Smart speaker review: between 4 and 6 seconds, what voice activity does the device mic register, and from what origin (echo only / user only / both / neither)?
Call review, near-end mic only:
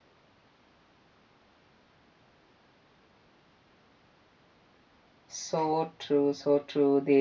user only